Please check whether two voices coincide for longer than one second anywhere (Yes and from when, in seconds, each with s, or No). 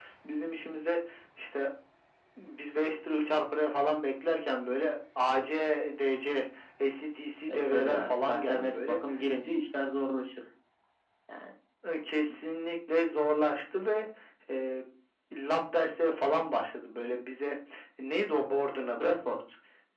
Yes, from 7.5 s